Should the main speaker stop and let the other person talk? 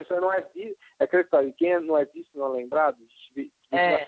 No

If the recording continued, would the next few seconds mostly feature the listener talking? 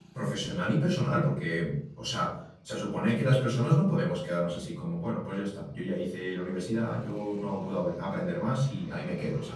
Yes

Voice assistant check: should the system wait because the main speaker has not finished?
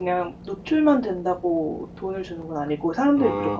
No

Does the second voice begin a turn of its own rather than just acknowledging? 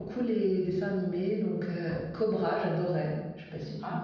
Yes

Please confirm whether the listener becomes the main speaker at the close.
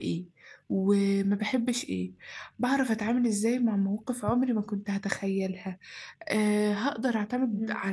No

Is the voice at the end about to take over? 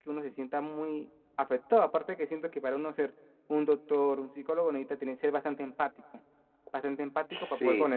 No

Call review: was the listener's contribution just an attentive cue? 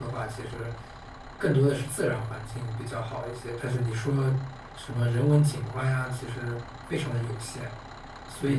No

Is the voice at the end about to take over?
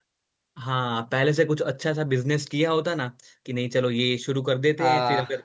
No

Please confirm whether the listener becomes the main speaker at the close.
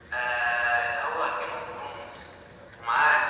No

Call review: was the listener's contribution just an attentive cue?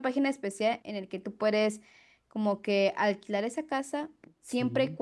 Yes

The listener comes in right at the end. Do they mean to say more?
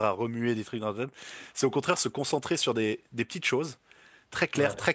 No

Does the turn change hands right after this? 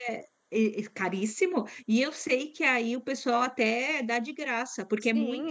Yes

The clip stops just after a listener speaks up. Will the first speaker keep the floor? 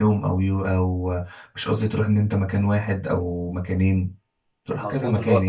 No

